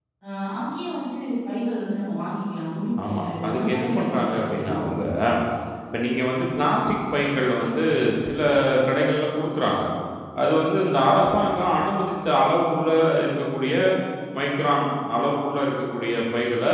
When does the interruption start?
3 s

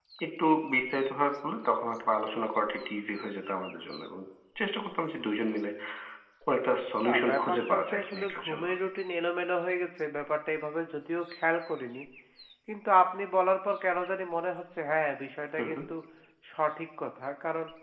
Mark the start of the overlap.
7 s

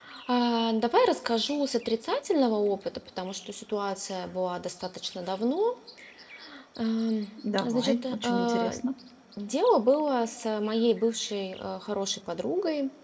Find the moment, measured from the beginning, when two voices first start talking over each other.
8 s

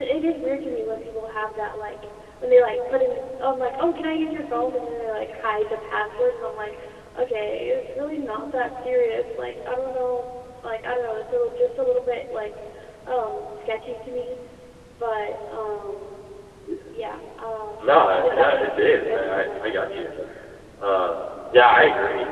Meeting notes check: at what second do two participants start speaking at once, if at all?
18 s

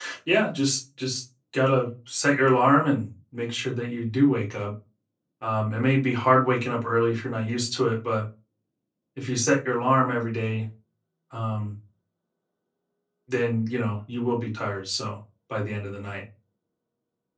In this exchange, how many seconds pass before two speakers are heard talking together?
none

